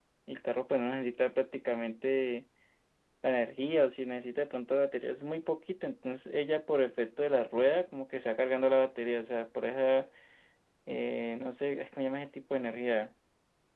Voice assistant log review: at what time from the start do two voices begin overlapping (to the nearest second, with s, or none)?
none